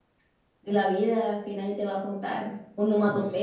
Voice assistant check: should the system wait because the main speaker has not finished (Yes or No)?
No